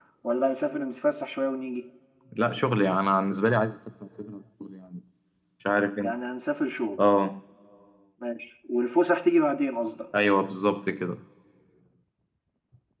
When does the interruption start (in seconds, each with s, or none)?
none